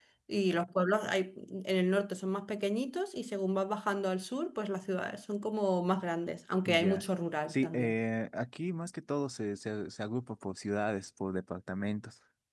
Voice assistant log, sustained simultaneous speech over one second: none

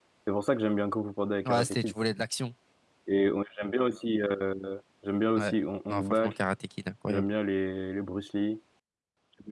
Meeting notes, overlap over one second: none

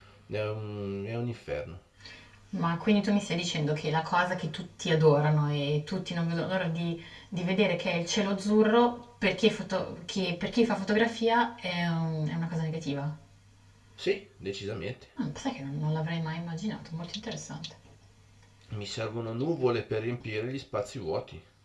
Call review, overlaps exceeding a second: none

